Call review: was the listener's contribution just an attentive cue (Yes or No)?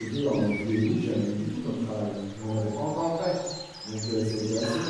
Yes